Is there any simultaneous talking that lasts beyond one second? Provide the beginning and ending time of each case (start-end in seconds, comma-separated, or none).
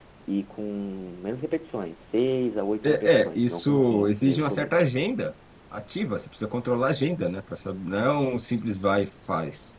2.8-4.7